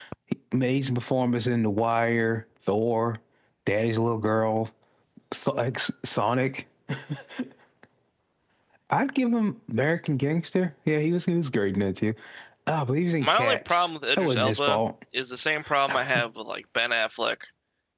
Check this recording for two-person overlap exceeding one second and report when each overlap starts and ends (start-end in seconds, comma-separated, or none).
13.2-14.8